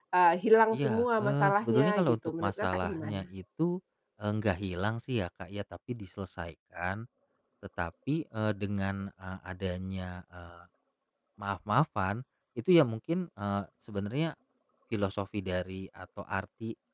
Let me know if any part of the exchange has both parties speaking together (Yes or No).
Yes